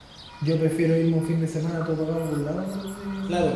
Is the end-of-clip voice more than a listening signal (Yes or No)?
Yes